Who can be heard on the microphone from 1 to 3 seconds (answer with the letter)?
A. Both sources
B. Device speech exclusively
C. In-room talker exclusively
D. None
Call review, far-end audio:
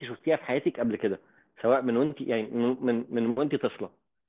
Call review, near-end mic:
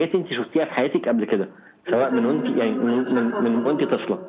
A